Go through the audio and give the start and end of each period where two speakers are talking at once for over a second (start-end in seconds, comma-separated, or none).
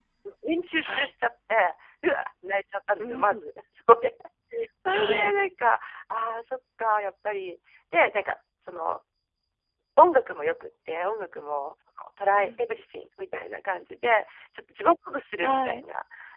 none